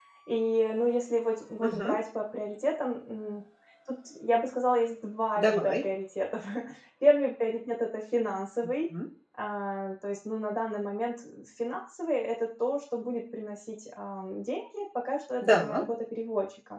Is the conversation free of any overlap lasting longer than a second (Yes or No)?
Yes